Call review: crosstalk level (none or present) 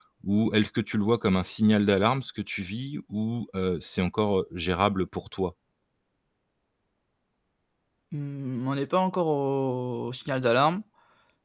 none